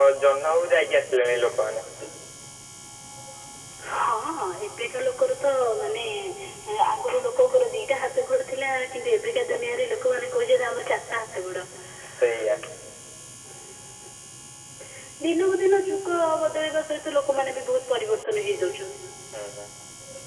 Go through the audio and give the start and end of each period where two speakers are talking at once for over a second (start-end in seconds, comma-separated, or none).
none